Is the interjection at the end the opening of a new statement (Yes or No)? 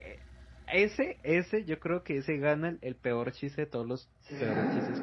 No